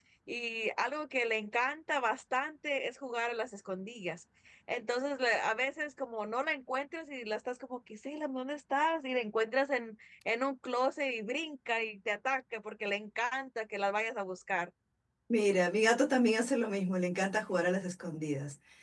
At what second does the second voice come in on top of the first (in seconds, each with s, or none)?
none